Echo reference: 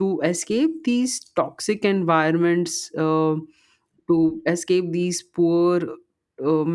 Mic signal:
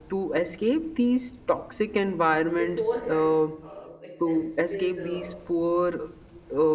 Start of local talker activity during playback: 3 s

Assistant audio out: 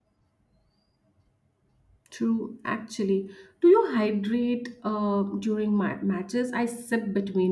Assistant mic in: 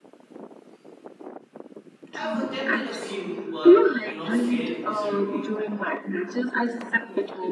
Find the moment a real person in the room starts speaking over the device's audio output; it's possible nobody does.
2 s

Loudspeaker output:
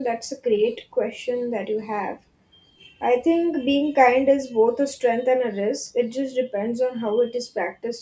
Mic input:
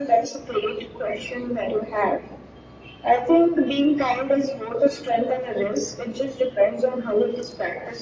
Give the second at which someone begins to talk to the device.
none

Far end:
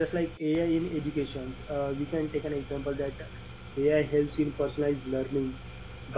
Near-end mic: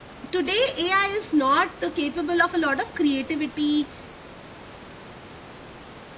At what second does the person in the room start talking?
0 s

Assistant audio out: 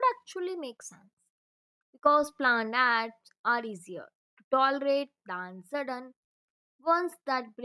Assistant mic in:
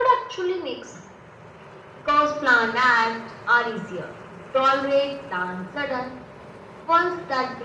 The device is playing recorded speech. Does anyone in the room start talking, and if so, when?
none

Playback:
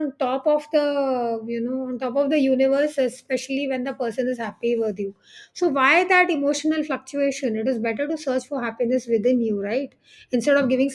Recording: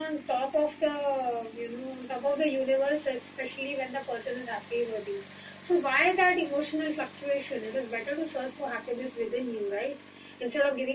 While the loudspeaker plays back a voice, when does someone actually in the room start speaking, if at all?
none

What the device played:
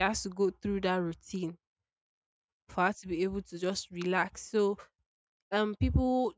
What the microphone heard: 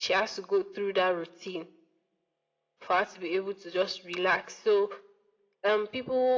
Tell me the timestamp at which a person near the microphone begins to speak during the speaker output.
none

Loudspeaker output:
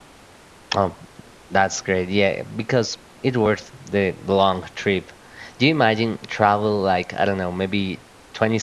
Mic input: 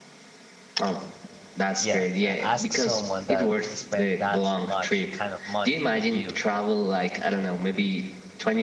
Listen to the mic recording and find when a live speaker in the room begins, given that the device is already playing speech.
2 s

